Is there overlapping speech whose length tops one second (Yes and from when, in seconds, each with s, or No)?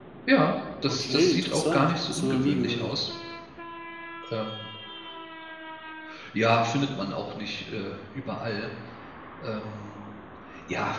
Yes, from 0.9 s